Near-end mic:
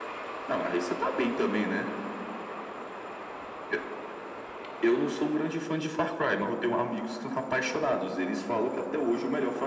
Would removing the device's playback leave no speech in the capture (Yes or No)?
Yes